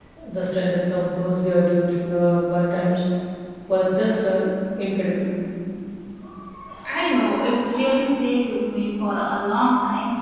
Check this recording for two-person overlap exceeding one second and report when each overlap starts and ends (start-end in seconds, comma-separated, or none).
none